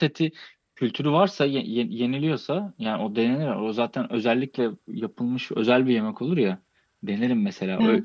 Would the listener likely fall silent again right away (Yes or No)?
No